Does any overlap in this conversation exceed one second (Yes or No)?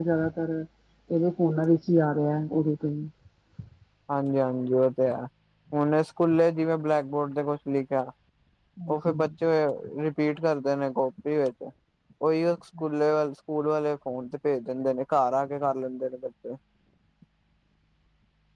No